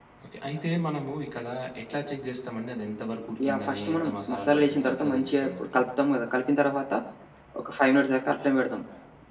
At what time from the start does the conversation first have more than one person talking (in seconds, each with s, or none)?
3.4 s